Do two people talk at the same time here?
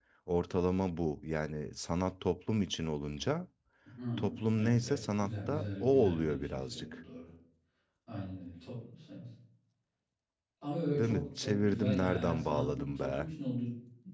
Yes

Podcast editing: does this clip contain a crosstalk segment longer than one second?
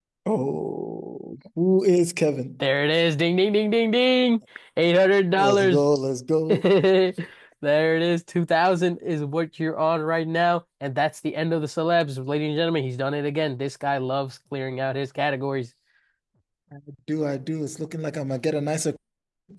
No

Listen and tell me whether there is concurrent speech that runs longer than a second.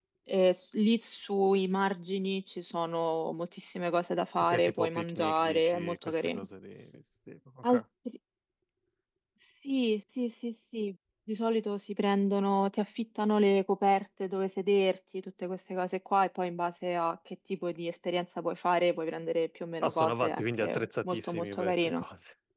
Yes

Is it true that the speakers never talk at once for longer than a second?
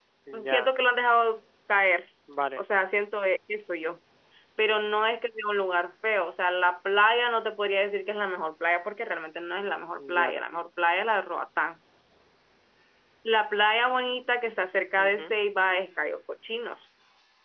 Yes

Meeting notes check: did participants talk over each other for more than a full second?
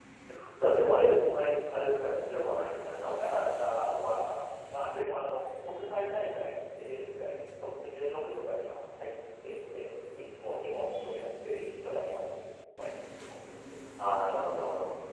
No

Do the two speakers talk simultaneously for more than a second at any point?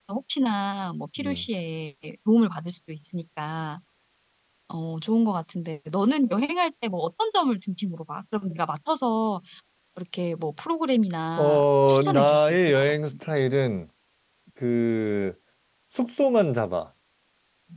Yes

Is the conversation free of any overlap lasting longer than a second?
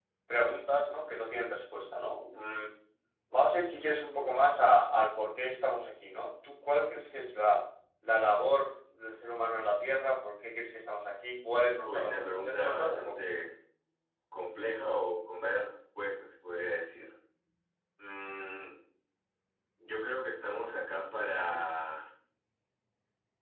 No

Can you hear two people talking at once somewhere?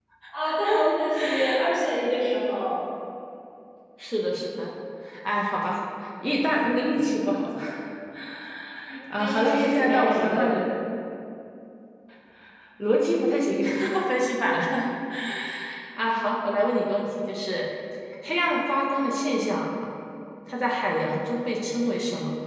Yes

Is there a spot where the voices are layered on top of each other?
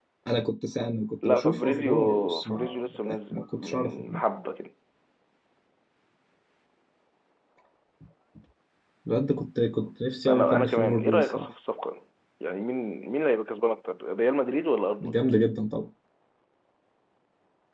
Yes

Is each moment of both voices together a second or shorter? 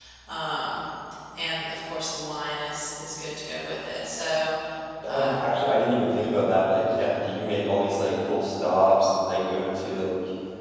Yes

